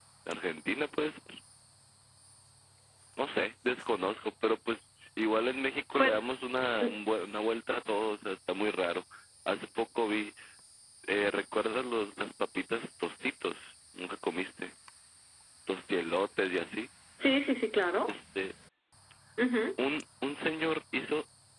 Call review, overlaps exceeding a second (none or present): none